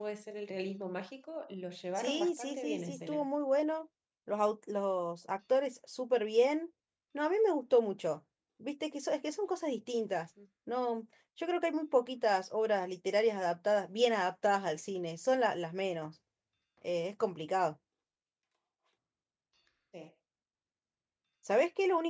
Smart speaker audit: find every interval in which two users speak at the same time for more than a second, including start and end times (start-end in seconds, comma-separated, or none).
2.0-3.3